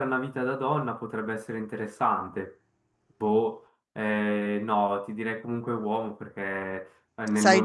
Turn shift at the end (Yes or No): No